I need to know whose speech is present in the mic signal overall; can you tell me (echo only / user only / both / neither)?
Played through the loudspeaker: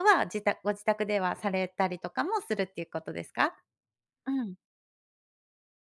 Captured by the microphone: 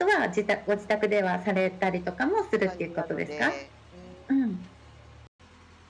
both